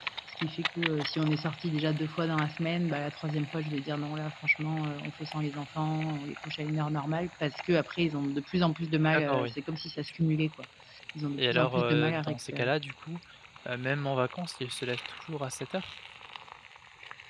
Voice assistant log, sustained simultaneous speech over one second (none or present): present